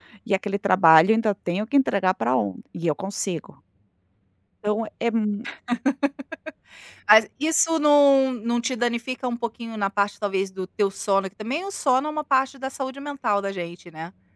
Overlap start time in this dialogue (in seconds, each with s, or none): none